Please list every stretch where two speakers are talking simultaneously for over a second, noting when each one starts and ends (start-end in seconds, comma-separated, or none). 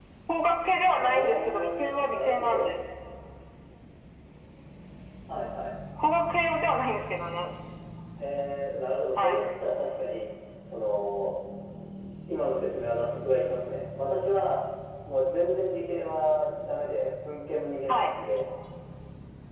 1.0-2.7